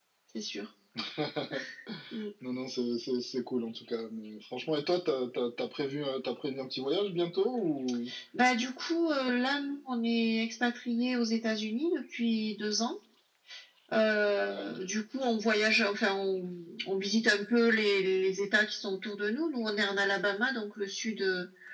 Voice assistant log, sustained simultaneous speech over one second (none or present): none